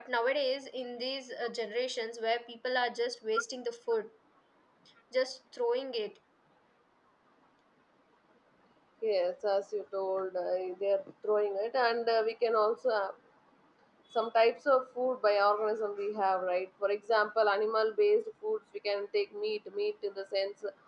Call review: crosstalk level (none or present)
none